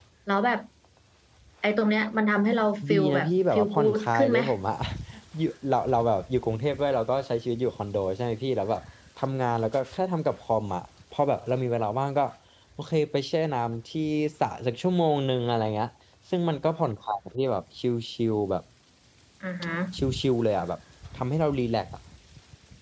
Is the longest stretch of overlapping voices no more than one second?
No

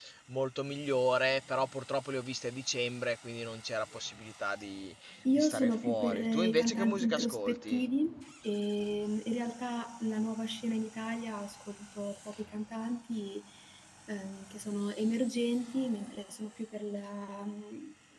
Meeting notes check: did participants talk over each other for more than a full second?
Yes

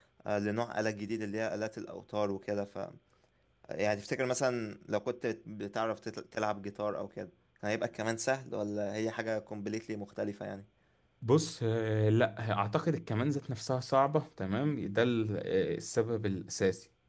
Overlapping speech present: No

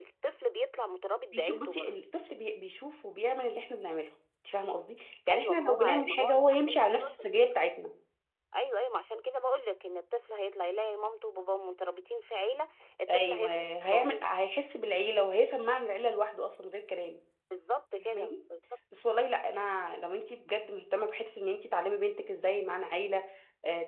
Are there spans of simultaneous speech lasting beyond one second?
Yes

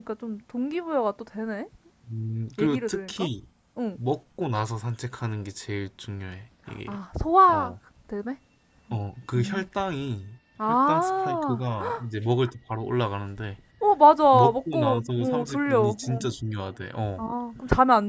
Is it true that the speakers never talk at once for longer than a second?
No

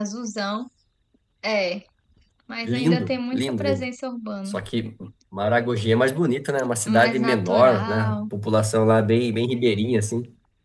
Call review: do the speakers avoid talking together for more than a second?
No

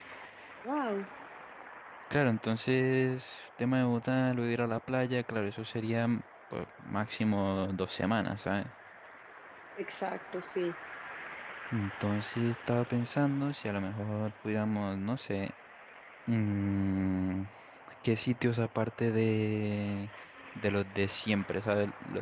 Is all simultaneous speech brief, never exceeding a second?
Yes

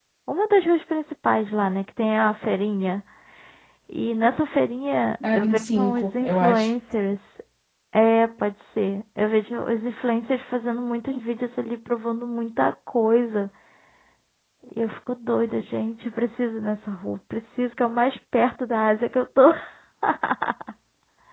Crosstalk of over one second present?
Yes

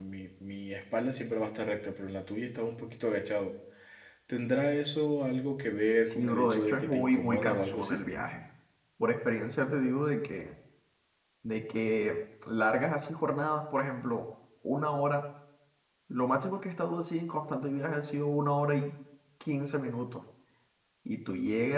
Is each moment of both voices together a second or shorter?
No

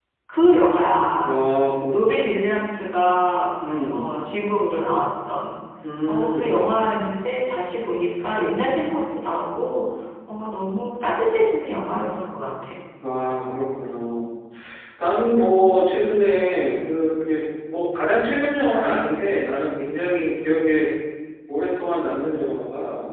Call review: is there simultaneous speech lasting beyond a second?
No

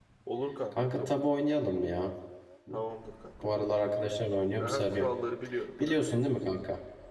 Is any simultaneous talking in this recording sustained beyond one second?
No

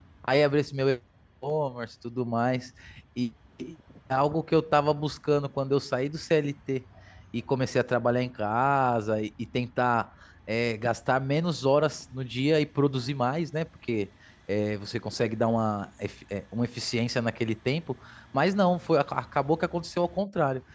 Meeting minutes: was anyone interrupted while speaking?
No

